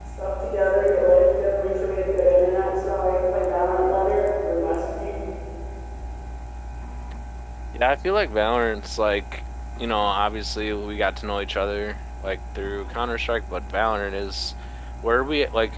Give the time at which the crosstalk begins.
none

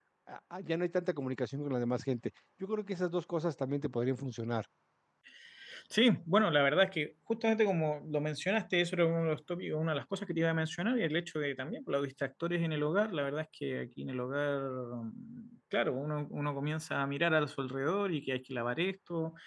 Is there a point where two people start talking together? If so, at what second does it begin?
none

